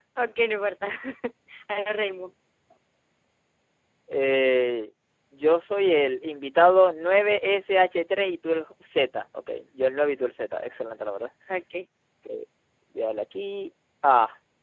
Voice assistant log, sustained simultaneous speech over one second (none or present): none